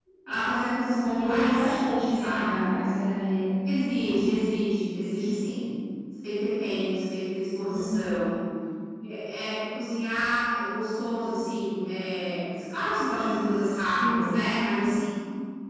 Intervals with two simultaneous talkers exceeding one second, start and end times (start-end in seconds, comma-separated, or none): none